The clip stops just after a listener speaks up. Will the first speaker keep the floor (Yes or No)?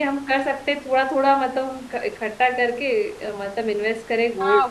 No